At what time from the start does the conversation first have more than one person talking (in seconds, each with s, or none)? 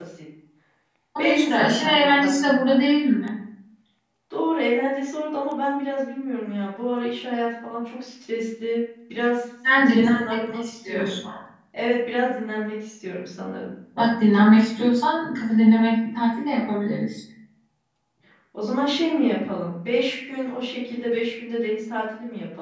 1.2 s